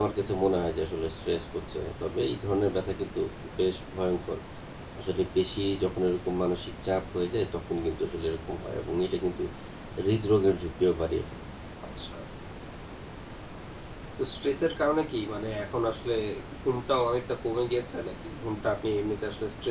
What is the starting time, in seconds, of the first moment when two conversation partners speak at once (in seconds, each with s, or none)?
none